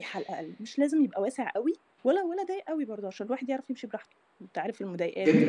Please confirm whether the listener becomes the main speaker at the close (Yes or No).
Yes